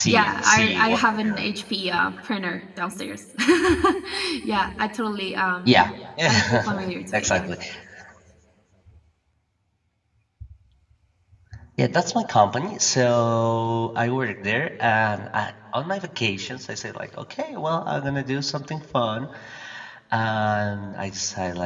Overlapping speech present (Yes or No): Yes